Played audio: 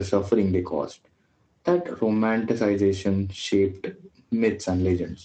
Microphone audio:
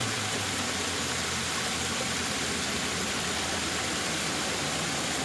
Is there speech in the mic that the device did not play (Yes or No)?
No